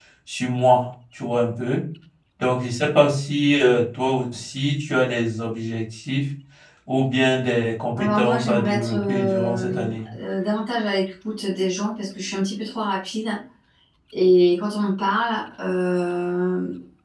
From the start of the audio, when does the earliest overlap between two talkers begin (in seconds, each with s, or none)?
7.9 s